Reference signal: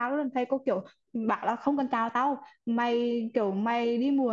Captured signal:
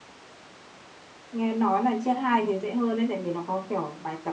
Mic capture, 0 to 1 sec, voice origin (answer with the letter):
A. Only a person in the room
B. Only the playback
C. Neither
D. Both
C